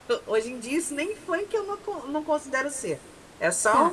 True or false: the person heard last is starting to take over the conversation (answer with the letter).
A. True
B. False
A